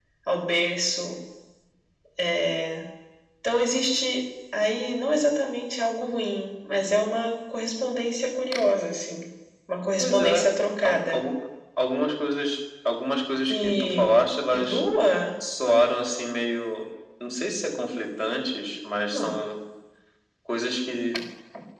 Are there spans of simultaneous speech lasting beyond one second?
Yes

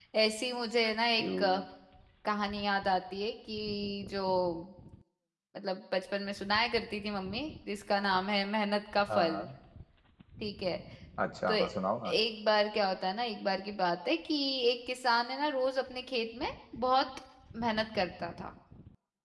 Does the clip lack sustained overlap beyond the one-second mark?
Yes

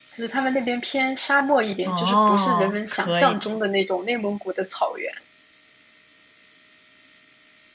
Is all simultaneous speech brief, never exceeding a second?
No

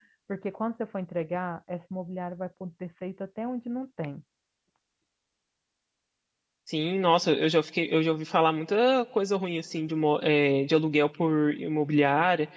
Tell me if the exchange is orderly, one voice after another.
Yes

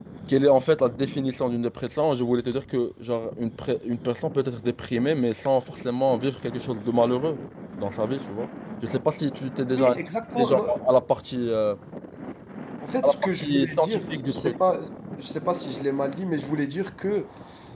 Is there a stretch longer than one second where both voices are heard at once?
Yes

